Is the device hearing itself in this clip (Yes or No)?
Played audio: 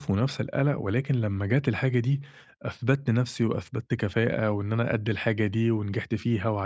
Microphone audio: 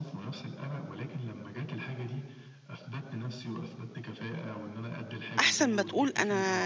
Yes